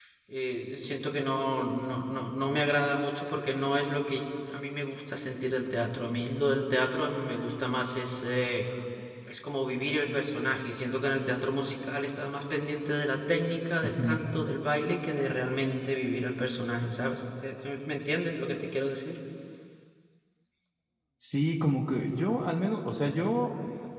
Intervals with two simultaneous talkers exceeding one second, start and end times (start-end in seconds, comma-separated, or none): none